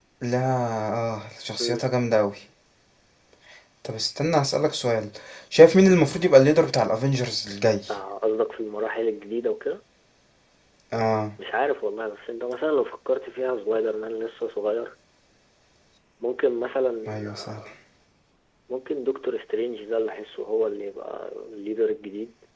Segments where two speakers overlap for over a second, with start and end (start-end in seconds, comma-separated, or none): none